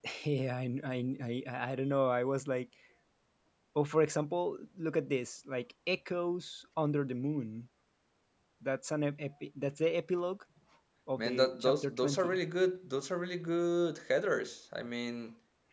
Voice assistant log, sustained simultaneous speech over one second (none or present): present